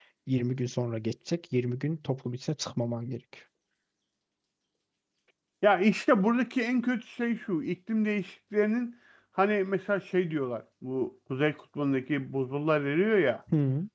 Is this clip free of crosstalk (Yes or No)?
Yes